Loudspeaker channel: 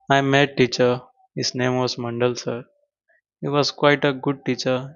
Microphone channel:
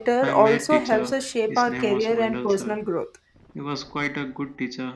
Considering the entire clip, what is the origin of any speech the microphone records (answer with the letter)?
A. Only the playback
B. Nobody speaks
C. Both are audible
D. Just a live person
C